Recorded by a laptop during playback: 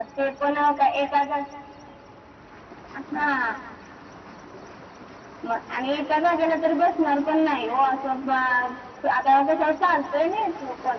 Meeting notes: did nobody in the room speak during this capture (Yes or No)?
Yes